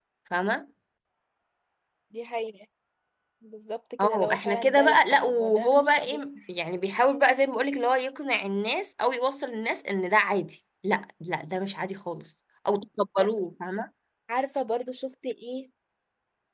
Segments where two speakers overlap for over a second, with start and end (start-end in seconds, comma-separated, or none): 4.0-6.2